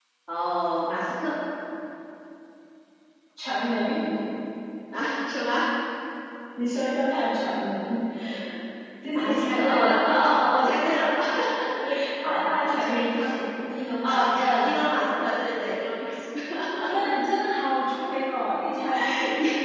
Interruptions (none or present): present